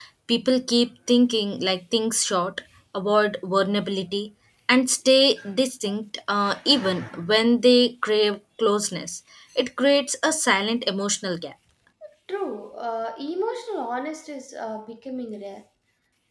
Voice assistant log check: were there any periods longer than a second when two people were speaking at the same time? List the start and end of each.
none

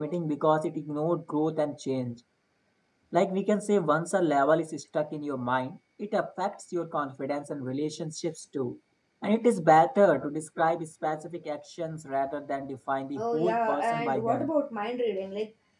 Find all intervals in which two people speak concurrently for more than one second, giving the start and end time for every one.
13.2-14.5

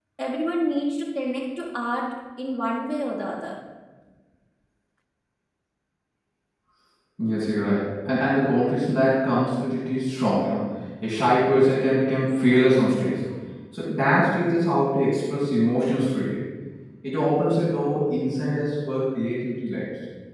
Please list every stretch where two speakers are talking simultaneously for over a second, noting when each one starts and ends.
none

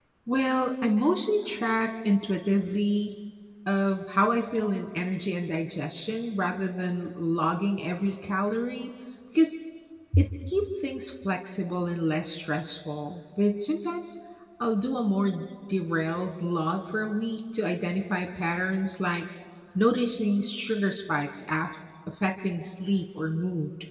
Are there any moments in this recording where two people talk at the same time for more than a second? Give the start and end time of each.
none

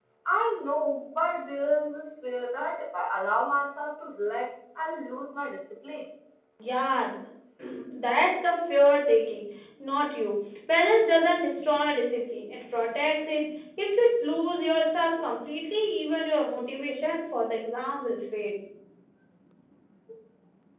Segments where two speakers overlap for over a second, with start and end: none

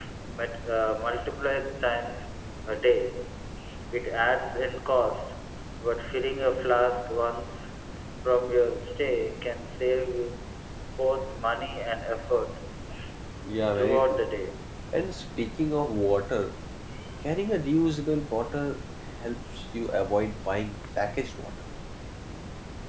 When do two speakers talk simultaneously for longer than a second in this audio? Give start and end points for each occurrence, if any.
none

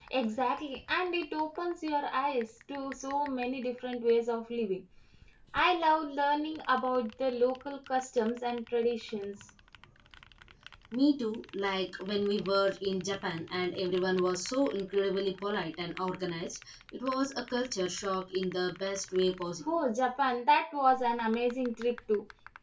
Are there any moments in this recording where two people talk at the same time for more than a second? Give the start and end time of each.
none

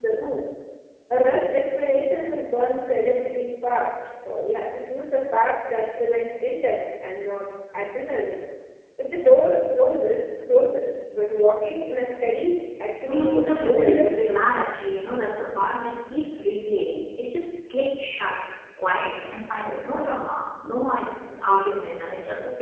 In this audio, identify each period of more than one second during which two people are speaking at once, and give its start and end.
13.1-14.7

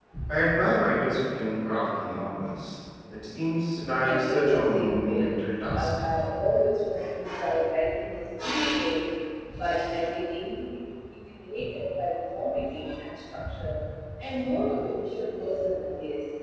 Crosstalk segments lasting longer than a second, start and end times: 4.0-5.3

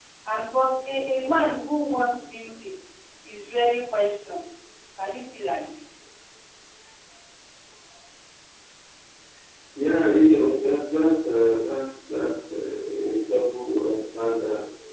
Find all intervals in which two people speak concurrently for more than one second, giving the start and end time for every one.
none

